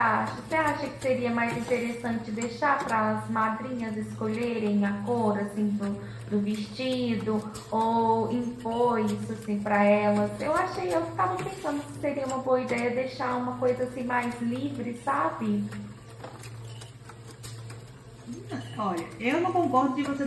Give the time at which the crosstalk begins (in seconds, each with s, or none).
none